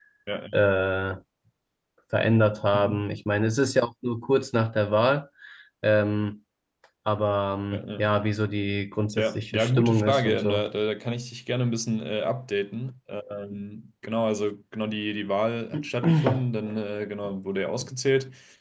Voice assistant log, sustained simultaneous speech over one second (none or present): present